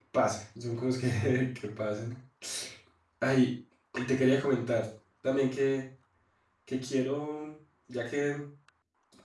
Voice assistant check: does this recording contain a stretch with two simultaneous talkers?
No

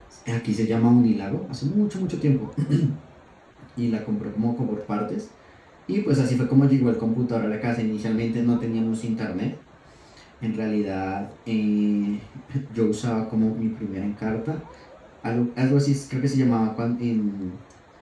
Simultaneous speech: No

